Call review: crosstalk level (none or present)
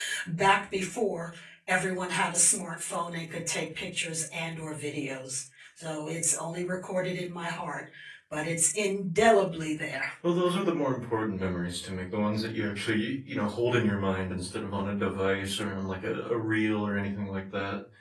none